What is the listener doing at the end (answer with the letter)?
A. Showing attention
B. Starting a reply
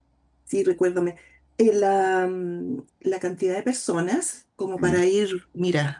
A